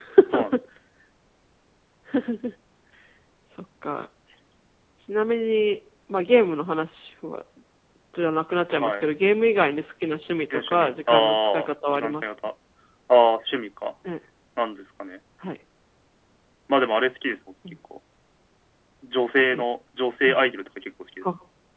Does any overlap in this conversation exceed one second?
Yes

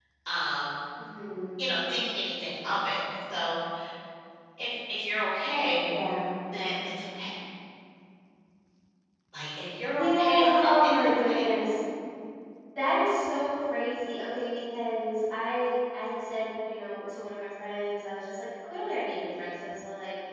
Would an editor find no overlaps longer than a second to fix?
No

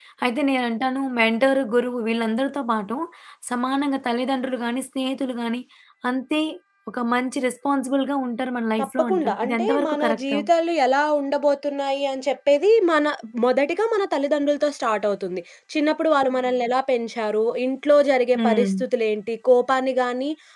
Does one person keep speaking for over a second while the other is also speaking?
Yes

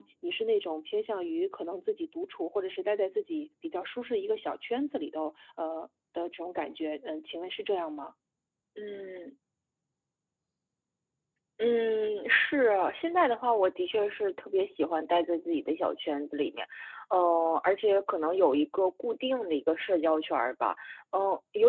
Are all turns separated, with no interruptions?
Yes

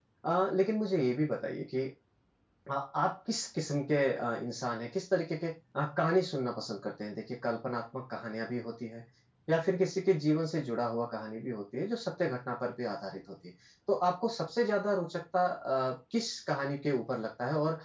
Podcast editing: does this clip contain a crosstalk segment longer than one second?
No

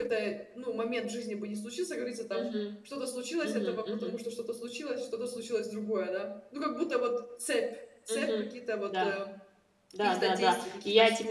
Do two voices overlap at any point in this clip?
Yes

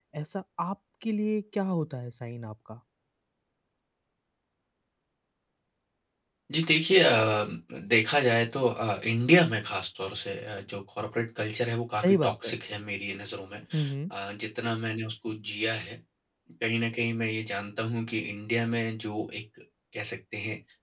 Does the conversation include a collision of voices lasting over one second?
No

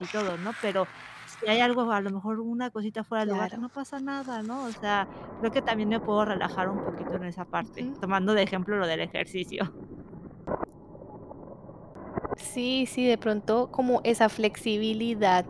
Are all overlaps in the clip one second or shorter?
Yes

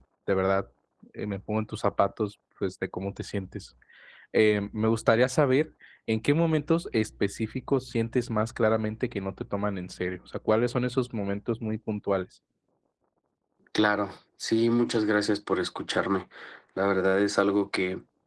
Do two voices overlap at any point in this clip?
No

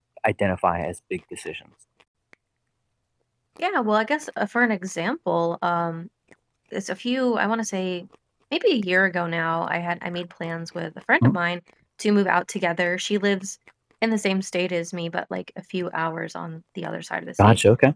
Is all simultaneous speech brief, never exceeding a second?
Yes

